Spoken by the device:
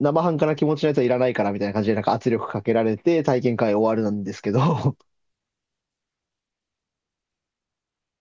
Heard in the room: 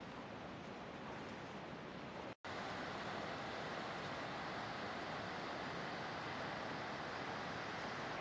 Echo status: none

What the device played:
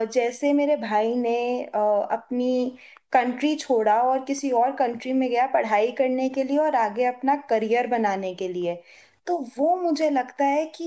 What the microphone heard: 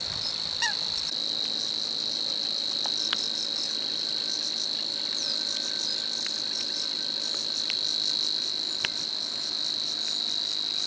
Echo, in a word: none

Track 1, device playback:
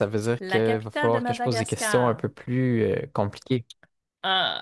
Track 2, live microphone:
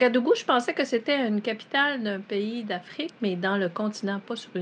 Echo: none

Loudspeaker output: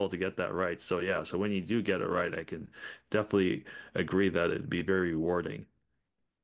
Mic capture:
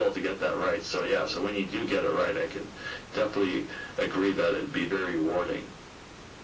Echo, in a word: present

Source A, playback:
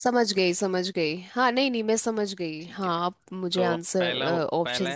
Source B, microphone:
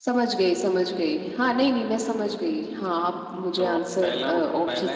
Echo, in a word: present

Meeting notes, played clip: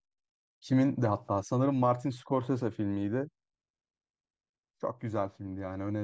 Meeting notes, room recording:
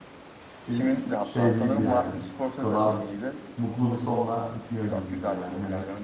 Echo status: present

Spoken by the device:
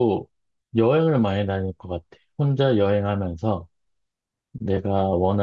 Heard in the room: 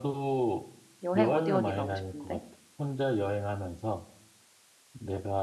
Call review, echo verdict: present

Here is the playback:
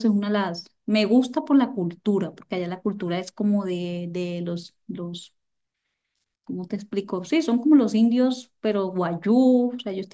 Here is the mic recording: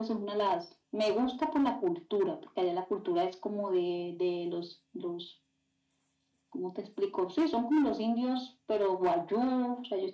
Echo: present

